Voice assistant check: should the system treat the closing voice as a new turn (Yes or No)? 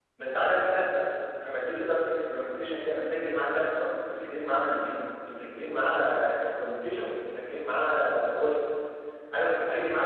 No